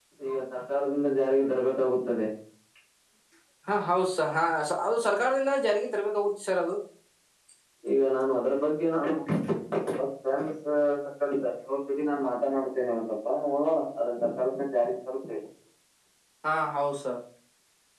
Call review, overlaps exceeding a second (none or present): none